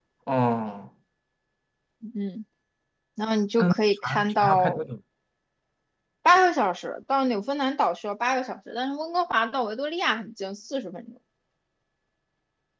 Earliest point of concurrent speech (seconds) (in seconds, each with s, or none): 3.6 s